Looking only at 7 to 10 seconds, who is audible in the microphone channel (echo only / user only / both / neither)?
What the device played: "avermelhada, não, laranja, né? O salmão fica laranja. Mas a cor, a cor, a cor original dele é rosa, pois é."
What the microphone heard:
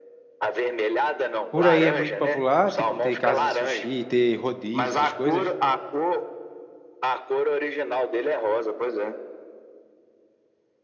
echo only